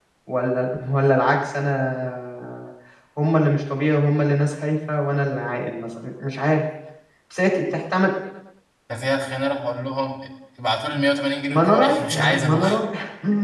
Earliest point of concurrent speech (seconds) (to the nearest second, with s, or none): 11 s